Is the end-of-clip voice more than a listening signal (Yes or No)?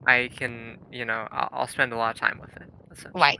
Yes